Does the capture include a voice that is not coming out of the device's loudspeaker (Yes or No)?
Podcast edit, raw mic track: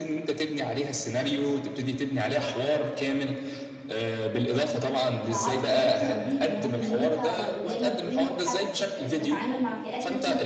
Yes